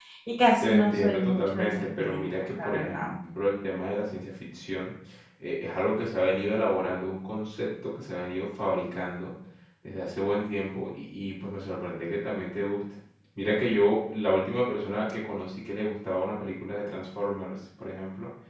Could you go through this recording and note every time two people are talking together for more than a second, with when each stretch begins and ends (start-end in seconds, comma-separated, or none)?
0.6-3.1